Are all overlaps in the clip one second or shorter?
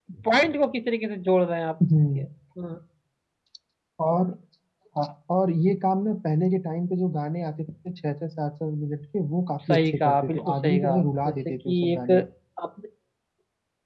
No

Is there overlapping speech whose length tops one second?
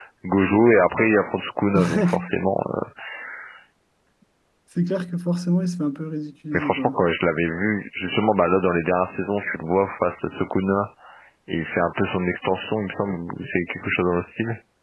No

